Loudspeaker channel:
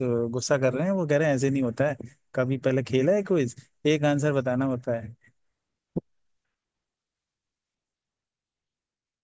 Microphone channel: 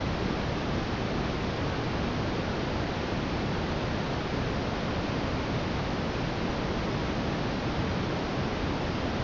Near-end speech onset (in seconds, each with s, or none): none